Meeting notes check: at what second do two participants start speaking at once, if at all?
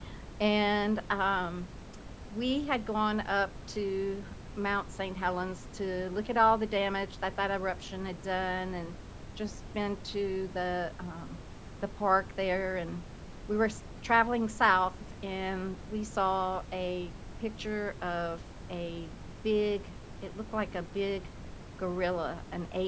none

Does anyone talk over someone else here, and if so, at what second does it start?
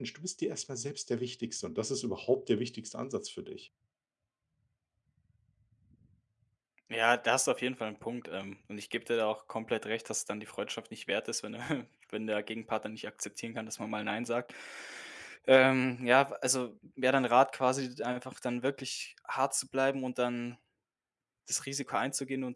none

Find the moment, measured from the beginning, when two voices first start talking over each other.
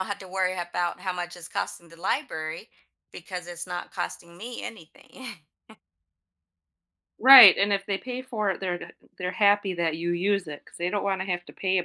none

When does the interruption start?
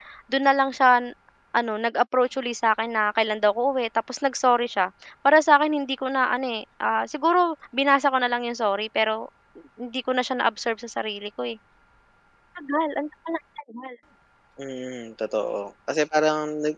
none

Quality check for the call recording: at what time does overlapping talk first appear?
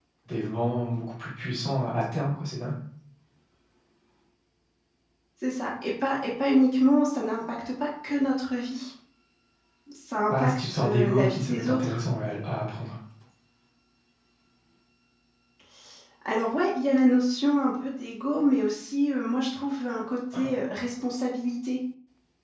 10.3 s

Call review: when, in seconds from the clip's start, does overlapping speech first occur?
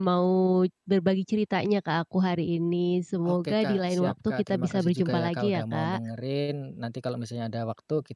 3.2 s

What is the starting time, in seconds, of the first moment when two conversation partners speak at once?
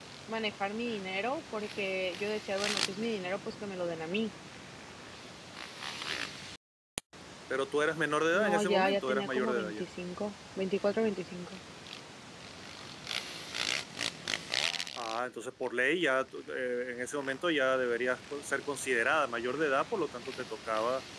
8.3 s

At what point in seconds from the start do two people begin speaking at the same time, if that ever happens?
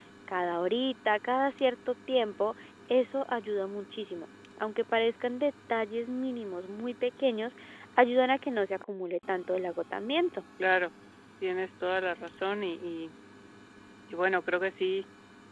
none

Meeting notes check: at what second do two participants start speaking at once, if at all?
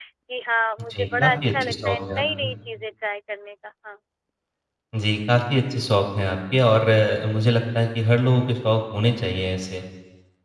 0.9 s

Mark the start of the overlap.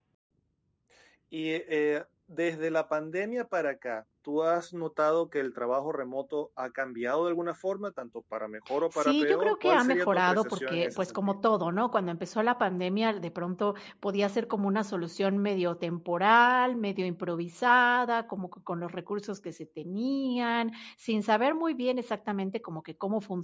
8.9 s

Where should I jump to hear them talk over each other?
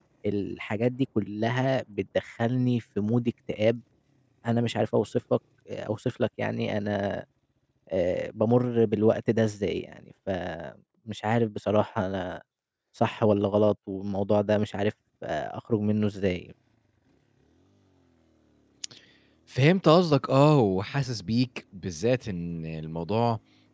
none

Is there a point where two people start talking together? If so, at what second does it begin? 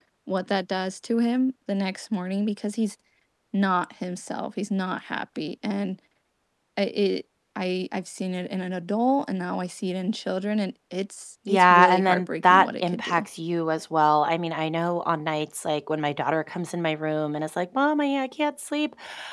11.5 s

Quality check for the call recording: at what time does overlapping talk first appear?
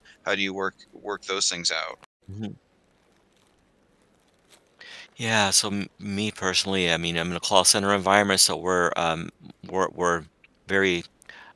none

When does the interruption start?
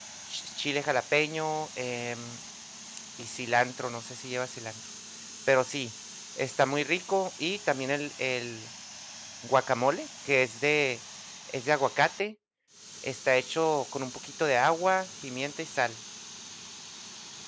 none

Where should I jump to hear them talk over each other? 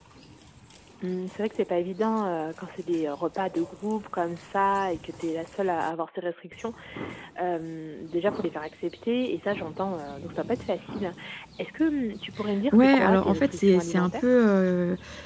12.7 s

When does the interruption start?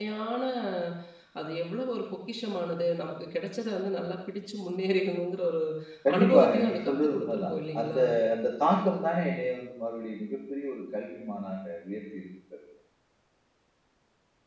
6.2 s

